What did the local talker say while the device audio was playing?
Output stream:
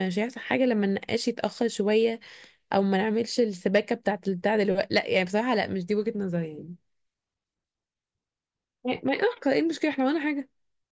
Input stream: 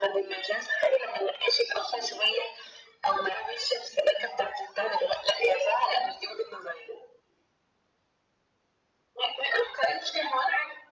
none

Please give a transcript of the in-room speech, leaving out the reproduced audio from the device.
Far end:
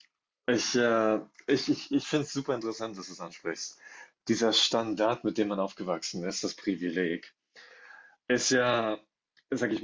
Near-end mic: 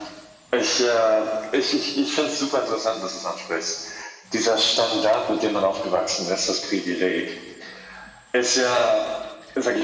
none

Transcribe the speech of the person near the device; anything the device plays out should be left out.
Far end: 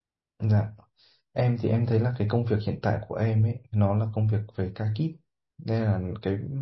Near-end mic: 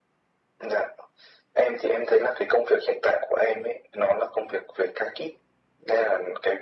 none

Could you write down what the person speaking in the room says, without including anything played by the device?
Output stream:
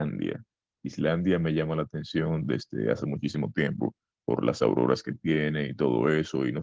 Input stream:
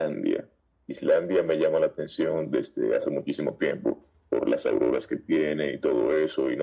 none

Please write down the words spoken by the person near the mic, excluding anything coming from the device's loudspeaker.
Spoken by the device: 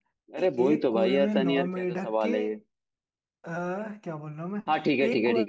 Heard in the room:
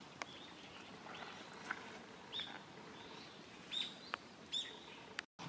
none

